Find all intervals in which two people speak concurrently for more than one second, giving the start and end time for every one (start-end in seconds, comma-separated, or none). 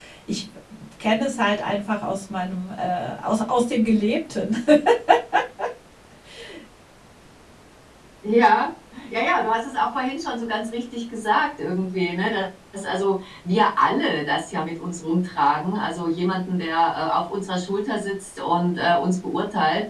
none